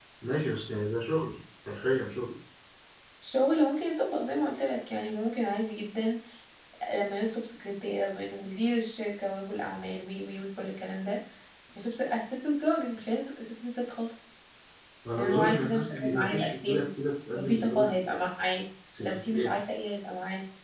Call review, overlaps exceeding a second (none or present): present